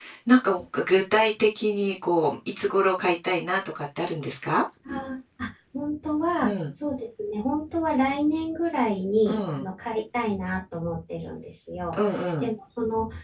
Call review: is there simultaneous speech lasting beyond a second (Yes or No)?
No